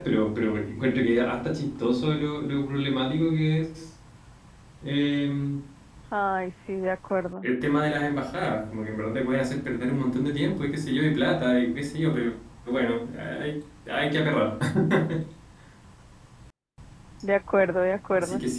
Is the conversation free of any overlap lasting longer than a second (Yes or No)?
Yes